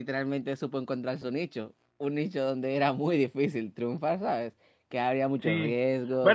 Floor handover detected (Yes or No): Yes